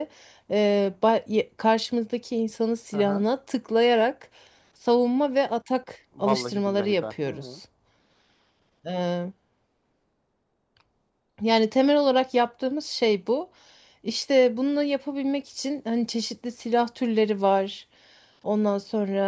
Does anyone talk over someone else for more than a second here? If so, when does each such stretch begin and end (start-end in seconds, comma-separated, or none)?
6.2-7.5